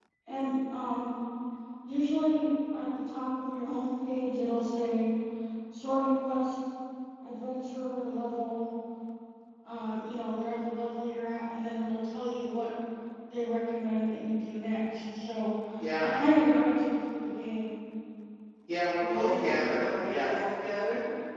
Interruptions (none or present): present